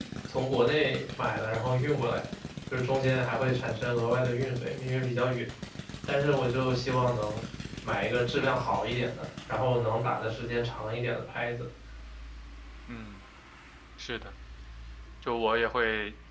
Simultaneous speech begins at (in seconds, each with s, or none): none